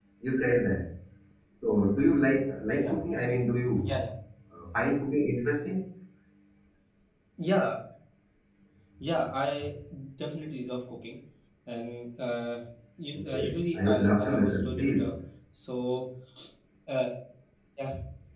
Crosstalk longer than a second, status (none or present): present